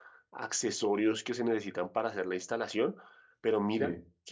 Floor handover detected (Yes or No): No